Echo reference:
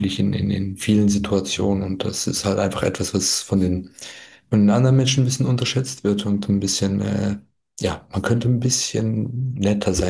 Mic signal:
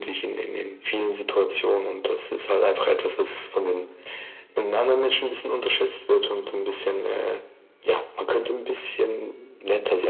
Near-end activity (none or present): none